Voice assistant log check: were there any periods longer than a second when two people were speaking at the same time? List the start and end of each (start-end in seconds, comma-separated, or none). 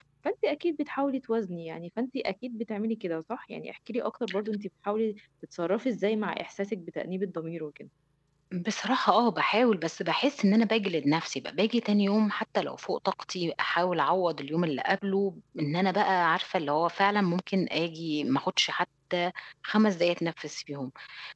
none